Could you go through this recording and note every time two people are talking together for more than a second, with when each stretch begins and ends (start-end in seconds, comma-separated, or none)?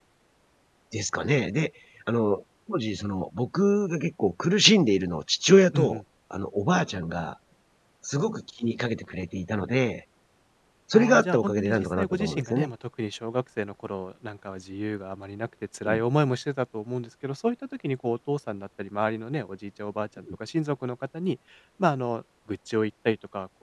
10.9-12.7